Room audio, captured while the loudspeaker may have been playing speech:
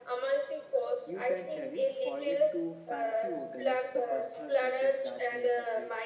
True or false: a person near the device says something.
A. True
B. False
A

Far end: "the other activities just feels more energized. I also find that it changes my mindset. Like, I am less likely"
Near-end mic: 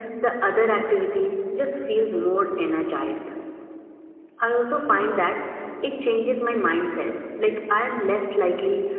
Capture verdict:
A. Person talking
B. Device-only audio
B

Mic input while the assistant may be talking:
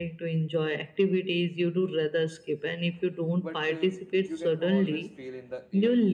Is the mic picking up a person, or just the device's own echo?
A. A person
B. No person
A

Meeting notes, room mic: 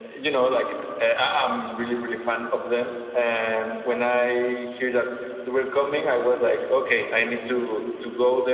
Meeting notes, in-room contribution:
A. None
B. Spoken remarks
A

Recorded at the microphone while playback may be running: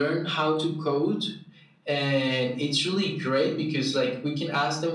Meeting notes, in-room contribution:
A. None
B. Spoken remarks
A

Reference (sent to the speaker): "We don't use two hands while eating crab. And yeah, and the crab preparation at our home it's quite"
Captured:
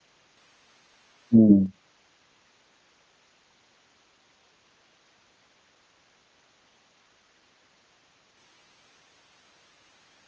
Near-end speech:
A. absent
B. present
B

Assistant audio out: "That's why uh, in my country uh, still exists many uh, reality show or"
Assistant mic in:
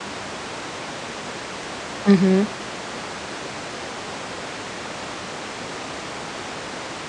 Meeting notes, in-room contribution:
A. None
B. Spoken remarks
B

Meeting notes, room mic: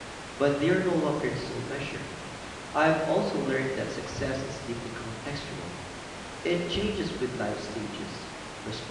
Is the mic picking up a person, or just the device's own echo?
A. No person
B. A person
B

